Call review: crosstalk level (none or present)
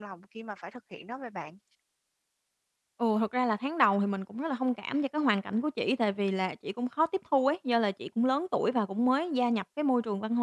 none